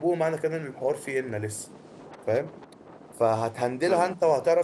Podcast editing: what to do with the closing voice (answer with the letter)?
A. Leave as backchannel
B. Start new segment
A